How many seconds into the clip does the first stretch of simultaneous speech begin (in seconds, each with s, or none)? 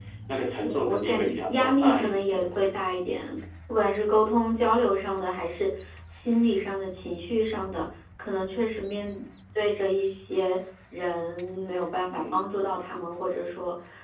0.6 s